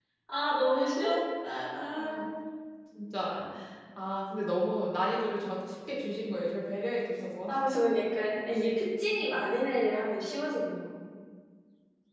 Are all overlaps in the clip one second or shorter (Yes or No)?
Yes